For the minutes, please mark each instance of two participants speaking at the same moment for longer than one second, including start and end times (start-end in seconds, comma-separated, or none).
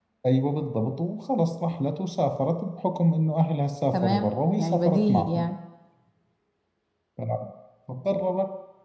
3.9-5.5